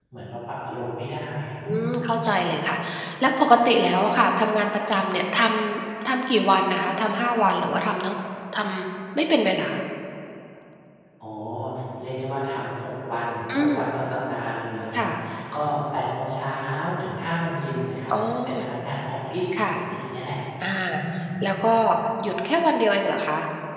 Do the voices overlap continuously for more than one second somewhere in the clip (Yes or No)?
No